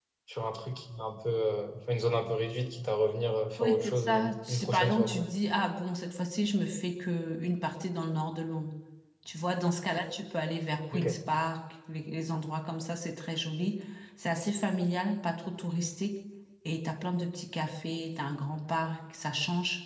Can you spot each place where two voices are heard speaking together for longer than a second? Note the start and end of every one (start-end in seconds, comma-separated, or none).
3.6-5.3